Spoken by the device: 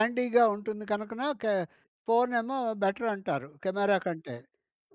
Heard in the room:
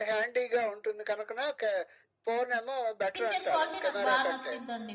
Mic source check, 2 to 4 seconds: both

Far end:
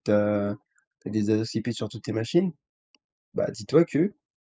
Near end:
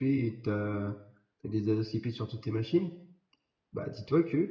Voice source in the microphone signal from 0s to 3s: echo only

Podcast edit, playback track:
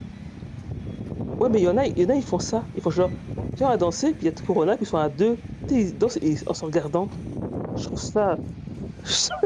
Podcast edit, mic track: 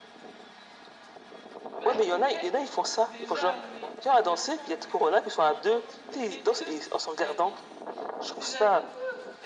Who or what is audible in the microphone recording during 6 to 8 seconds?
both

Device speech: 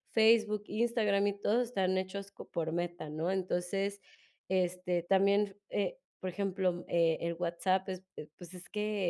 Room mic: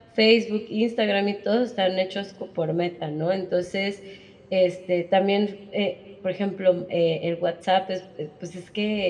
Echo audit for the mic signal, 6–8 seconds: echo only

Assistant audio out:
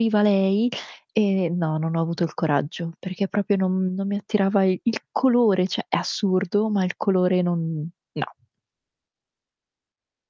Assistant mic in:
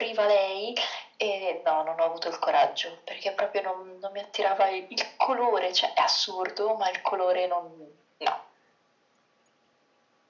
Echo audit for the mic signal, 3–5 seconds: echo only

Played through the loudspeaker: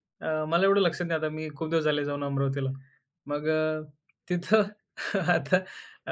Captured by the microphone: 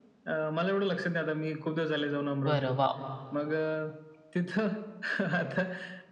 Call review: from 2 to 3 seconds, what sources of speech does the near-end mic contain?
both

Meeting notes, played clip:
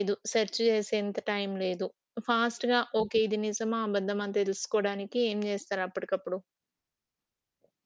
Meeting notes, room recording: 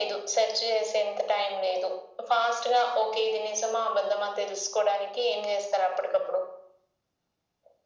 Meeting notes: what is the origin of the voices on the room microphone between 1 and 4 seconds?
echo only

